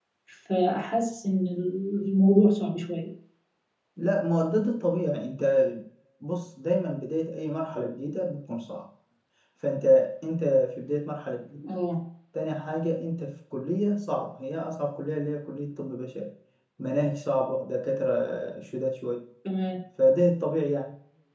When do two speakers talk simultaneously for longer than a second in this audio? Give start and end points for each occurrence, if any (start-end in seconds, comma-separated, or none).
none